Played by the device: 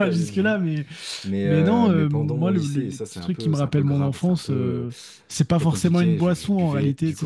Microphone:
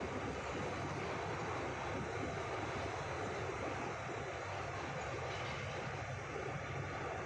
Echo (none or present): none